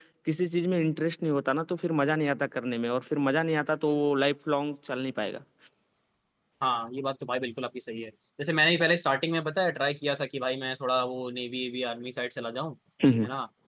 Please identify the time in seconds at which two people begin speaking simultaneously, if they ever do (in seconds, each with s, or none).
none